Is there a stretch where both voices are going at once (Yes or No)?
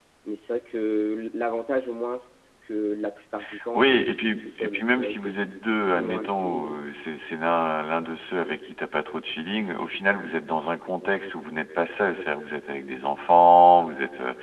Yes